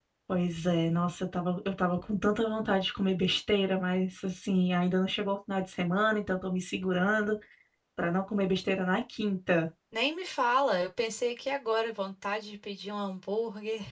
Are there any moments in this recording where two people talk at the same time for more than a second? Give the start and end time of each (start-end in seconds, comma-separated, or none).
none